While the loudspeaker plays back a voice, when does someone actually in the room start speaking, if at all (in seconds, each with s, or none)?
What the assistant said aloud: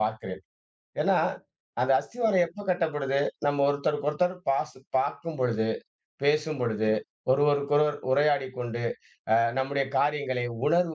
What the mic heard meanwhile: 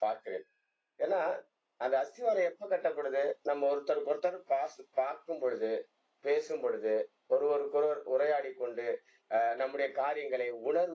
none